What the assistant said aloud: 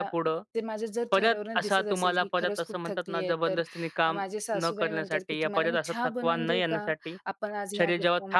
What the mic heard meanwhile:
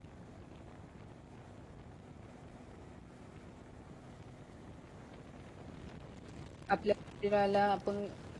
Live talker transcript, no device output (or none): आपल्या शरीराला आपण